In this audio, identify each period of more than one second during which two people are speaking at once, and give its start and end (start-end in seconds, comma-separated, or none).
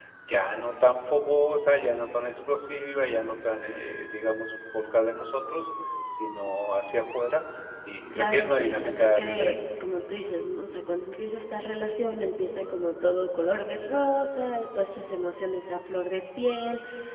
8.2-9.6